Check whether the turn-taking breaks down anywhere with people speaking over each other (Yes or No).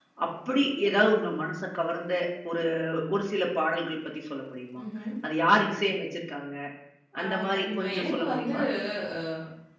Yes